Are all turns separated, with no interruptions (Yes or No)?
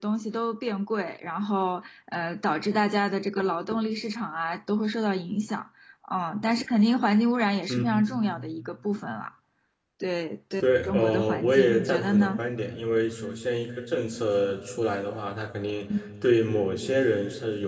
No